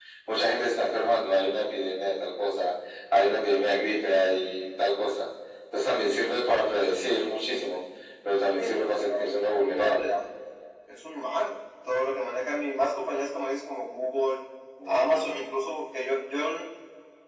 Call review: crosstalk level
present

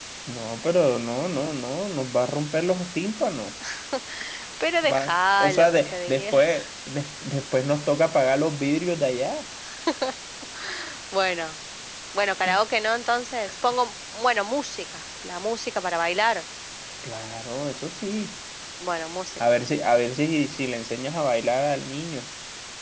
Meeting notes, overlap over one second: present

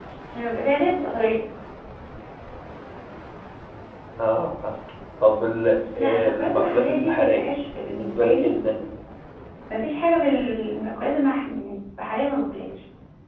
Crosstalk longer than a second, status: present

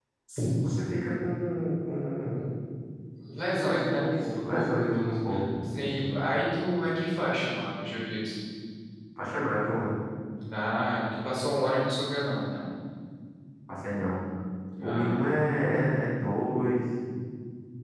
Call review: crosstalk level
present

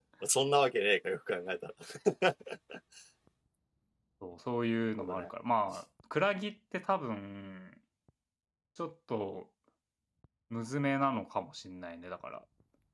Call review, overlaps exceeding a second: none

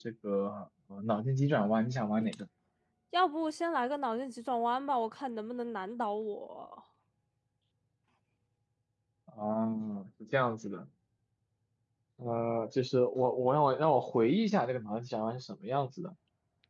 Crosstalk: none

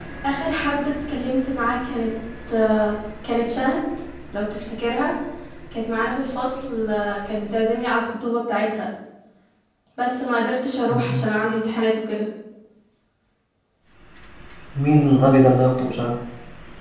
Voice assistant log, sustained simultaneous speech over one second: none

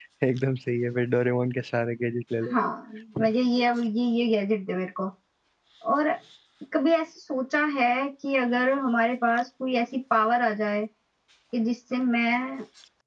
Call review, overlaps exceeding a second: none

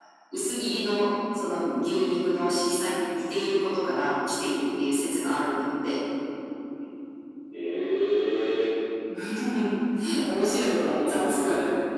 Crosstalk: present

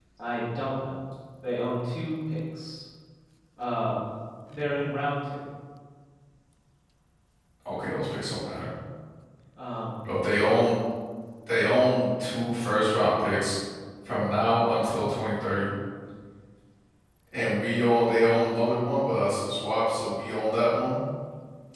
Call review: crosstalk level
none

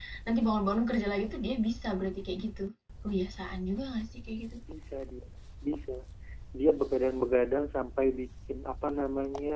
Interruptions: none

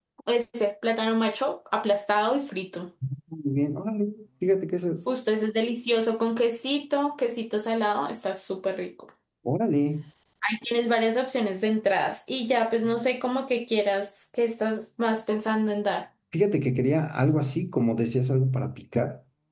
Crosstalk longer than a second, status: none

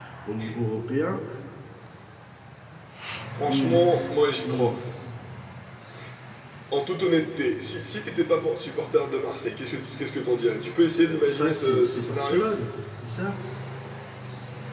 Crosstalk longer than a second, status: present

